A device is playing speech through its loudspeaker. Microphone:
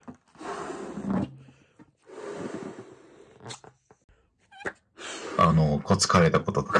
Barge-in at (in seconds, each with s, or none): 5.4 s